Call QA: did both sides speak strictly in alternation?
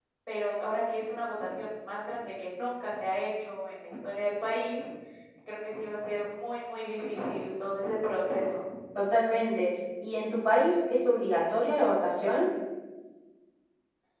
Yes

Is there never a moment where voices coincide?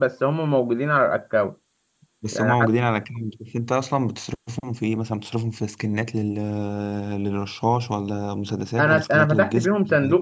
No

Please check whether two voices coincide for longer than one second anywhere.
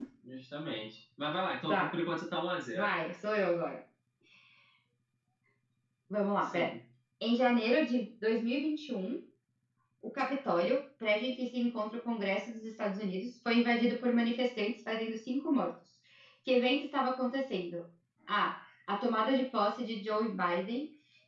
No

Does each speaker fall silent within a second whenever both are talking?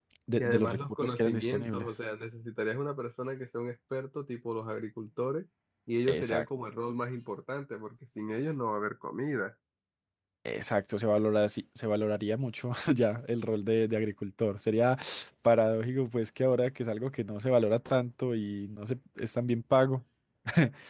No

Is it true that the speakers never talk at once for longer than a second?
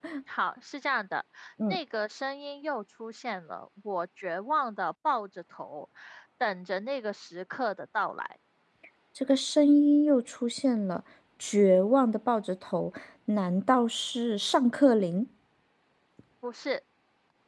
Yes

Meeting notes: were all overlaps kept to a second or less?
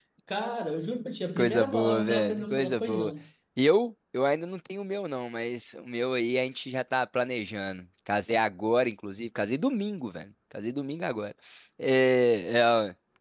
No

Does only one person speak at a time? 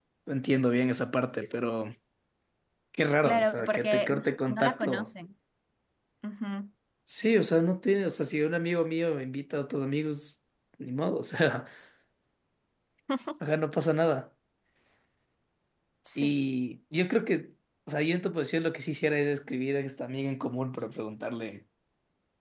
No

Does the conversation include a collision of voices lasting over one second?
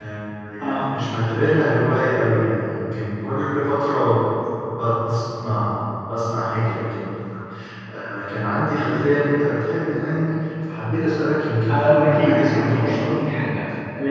Yes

